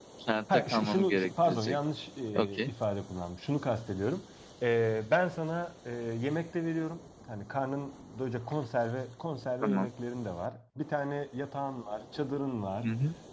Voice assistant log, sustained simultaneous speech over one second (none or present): present